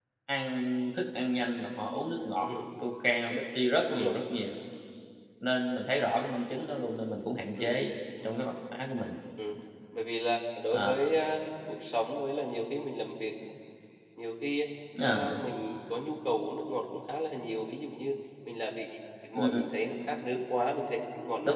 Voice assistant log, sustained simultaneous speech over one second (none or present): none